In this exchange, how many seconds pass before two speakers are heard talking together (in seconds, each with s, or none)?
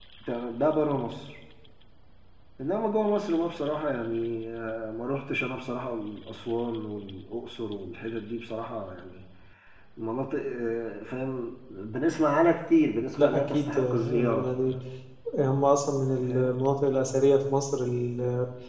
13.2 s